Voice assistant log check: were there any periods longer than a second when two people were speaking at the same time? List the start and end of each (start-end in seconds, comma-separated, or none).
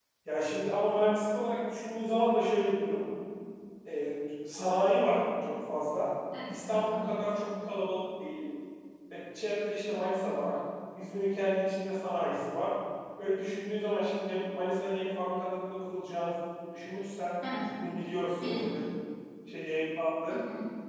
none